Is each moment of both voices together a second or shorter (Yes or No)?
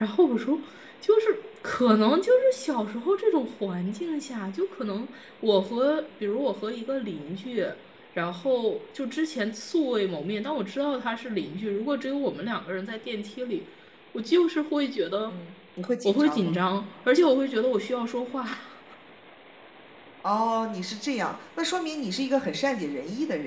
Yes